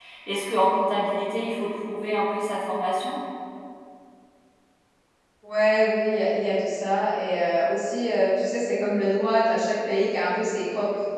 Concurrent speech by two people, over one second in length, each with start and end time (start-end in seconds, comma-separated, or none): none